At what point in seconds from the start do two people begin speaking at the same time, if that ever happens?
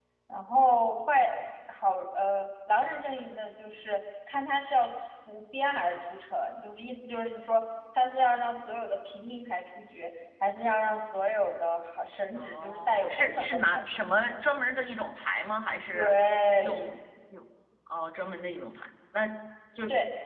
12.4 s

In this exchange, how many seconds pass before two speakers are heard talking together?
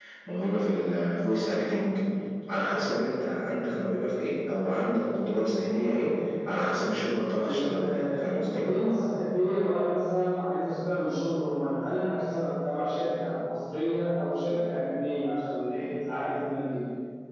7.4 s

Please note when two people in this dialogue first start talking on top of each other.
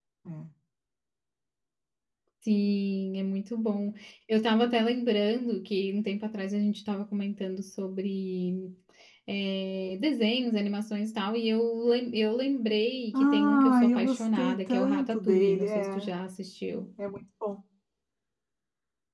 13.1 s

